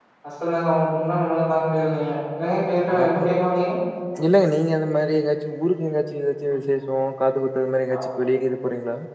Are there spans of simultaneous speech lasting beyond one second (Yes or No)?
No